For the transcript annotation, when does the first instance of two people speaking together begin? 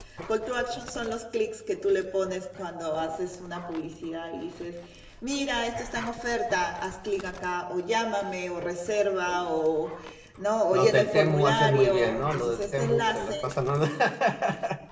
10.7 s

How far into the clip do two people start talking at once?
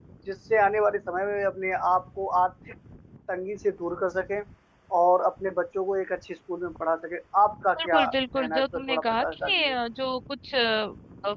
7.8 s

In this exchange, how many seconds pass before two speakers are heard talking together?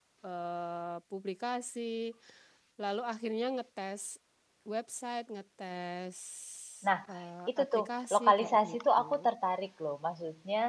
7.6 s

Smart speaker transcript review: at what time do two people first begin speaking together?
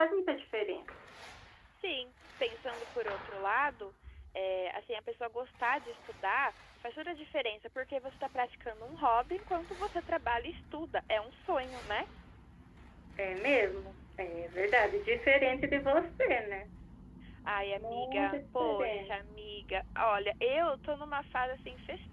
17.8 s

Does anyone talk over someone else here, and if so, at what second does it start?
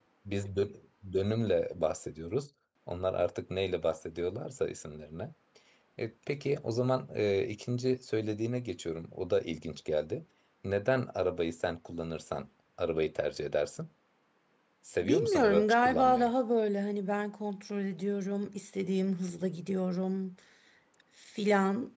15.0 s

